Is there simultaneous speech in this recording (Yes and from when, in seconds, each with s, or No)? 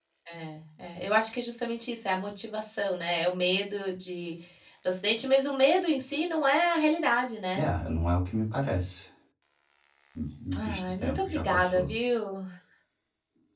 Yes, from 10.6 s